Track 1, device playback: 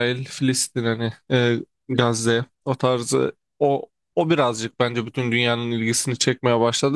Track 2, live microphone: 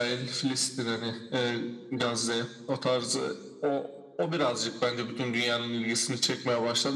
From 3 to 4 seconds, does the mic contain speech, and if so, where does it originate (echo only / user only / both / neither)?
echo only